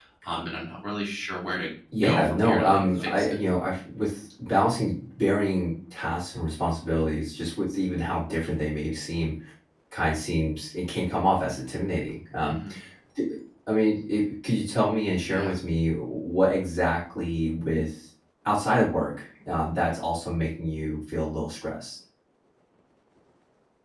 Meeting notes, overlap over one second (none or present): present